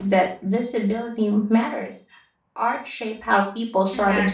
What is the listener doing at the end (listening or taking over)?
taking over